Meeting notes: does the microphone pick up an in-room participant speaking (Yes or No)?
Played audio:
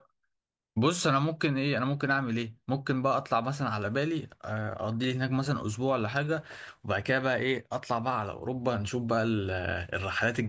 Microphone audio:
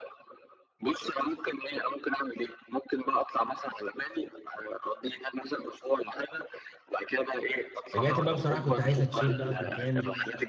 Yes